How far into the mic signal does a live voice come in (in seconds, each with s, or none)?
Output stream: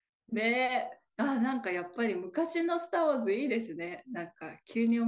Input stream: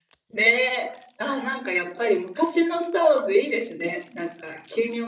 none